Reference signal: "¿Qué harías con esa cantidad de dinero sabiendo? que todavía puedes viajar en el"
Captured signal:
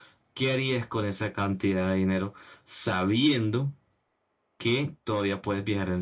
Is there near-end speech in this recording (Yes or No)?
No